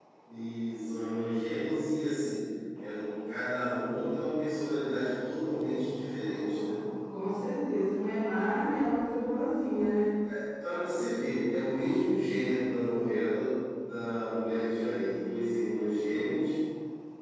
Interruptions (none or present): none